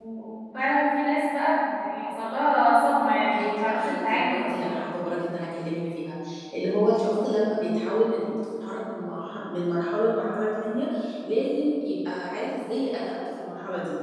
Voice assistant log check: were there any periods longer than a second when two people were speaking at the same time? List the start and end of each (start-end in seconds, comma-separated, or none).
3.2-4.8